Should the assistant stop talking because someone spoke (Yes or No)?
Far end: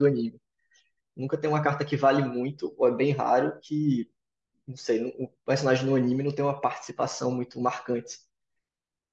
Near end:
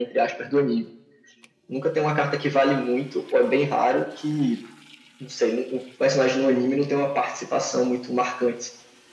No